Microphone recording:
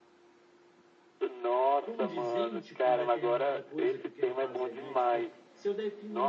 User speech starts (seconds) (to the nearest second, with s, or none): 2 s